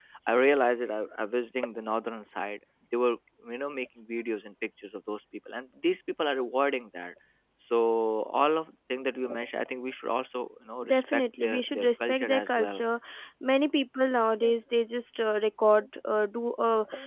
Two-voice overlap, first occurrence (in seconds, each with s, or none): 10.9 s